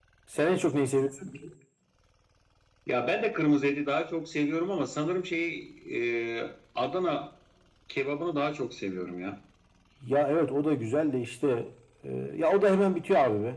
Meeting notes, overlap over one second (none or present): none